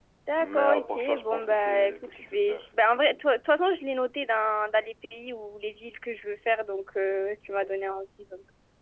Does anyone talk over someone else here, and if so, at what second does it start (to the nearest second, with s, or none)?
1 s